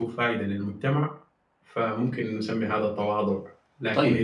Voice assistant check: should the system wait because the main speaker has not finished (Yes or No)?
Yes